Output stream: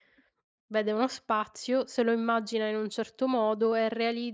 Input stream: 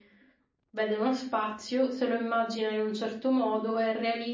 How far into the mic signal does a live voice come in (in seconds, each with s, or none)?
none